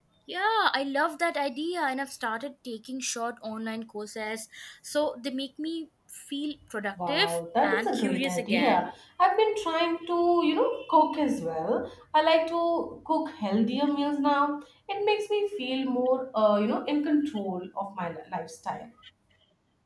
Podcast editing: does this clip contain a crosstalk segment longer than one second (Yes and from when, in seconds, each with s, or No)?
Yes, from 7.0 s